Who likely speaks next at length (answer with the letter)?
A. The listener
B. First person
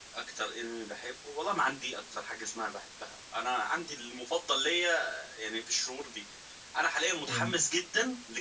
B